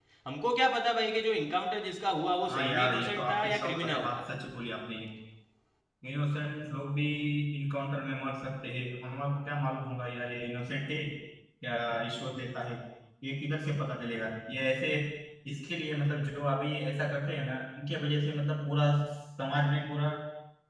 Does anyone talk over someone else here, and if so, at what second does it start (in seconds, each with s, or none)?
2.5 s